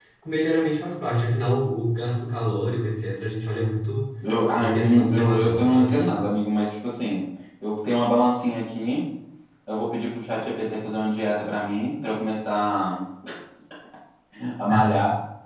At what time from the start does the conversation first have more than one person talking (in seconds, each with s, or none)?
4.6 s